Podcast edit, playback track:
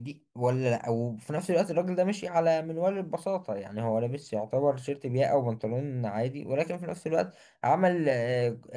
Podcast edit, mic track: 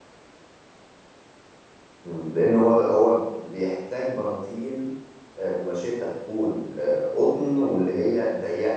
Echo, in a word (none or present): none